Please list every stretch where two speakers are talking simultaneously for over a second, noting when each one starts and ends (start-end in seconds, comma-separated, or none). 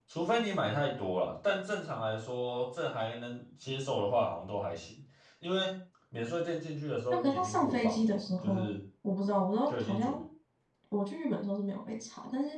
7.1-8.7